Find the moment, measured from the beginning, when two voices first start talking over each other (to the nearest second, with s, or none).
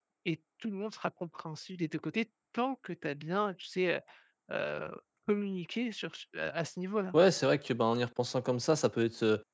none